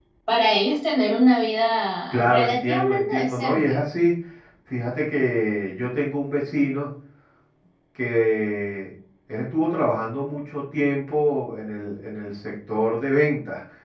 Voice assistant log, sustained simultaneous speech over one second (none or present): present